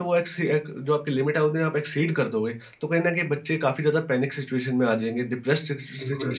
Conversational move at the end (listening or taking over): taking over